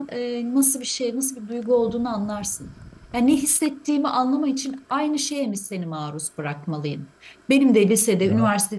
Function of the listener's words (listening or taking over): listening